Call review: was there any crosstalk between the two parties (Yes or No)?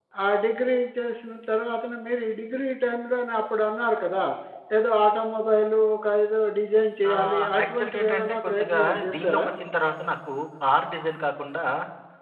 Yes